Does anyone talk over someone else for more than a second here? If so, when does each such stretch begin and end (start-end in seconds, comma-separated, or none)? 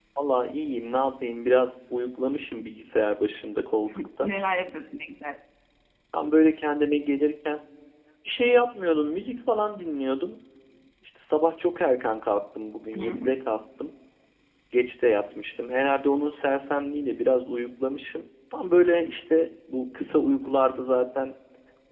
none